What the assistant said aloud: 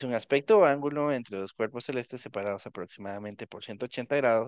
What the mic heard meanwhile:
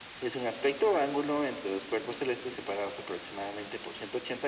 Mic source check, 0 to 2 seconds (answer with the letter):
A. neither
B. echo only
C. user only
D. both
B